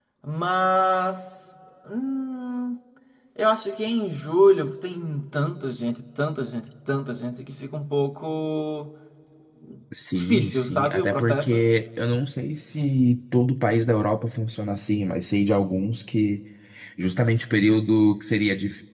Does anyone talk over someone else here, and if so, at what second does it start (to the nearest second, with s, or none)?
10 s